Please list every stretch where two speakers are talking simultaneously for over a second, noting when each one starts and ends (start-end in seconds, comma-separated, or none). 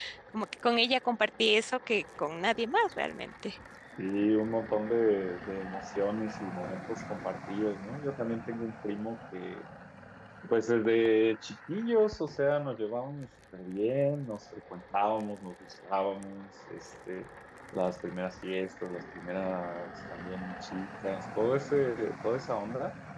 none